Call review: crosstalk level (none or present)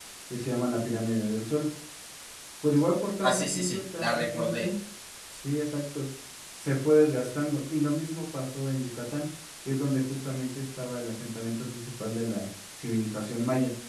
present